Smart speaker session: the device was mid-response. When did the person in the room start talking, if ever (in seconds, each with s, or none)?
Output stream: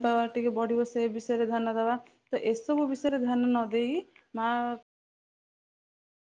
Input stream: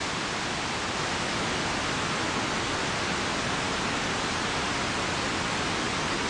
none